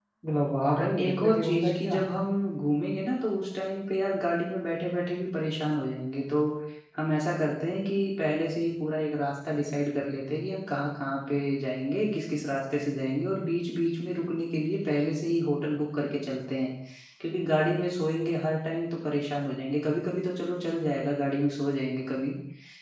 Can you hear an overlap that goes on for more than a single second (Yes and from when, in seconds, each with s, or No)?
Yes, from 0.6 s